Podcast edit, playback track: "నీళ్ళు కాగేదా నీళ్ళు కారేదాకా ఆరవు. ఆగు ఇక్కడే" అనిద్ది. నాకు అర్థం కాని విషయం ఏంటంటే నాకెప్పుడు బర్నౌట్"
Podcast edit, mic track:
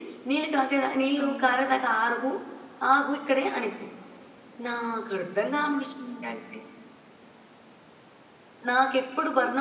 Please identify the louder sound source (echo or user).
echo